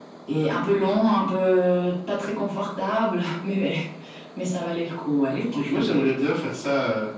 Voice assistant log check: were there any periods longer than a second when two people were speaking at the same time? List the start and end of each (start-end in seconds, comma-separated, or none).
none